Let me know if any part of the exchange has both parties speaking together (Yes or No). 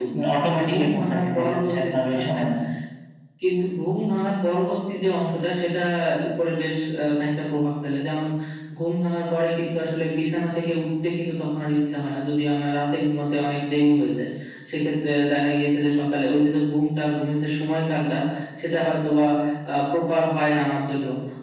Yes